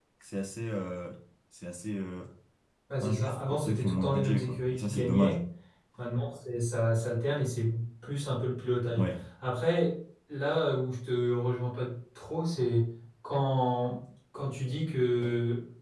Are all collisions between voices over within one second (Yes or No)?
No